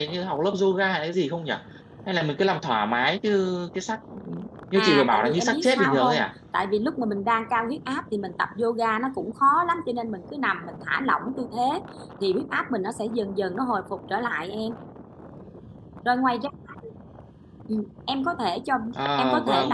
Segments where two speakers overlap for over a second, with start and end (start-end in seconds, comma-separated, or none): 4.8-6.2